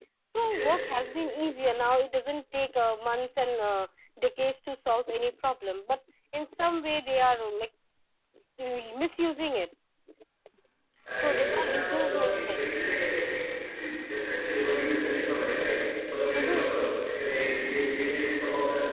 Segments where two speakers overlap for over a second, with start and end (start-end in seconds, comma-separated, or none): 11.2-12.6